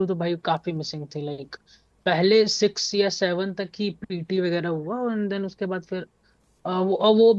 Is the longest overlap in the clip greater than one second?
No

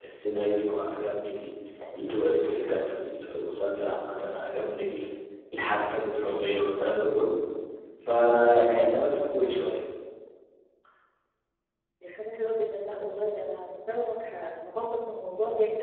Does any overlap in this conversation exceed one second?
No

